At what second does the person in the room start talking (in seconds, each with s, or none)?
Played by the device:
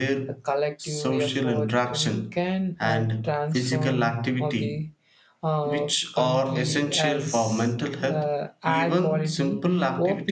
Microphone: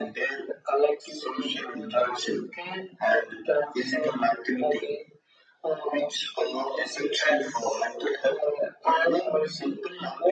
none